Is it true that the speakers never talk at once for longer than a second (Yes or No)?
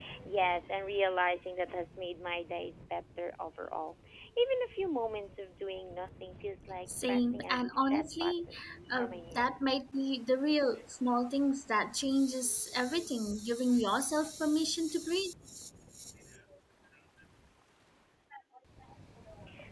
No